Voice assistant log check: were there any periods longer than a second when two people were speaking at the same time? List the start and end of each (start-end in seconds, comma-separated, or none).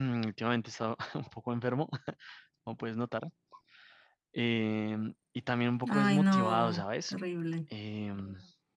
5.9-7.1